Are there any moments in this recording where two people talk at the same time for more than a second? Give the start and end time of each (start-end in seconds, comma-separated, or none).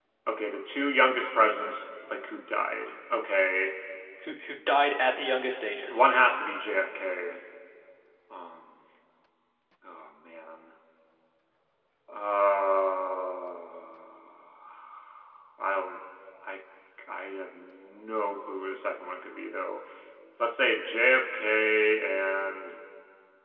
none